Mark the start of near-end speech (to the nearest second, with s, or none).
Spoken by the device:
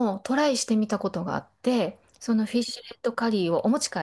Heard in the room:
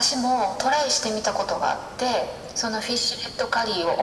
none